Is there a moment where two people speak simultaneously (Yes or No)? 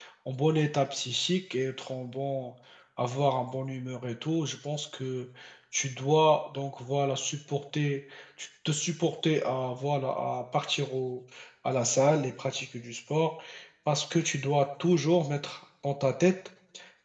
No